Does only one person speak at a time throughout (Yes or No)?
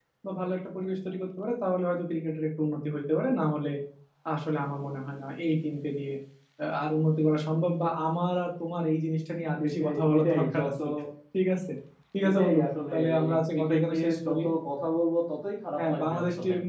No